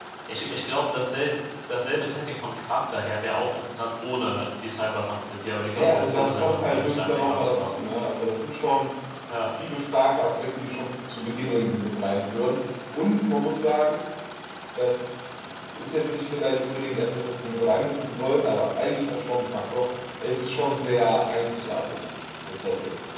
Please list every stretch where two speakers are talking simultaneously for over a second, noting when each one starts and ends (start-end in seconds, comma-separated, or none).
5.7-7.7